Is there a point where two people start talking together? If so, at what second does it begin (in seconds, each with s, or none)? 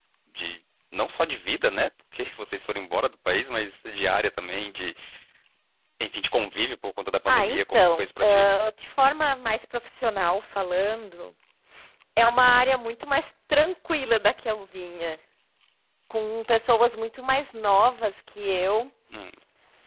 7.3 s